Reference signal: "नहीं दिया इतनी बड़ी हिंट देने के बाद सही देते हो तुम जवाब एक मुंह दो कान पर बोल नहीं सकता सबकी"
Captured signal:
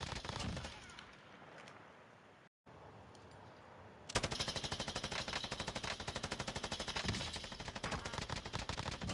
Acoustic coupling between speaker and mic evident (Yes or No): No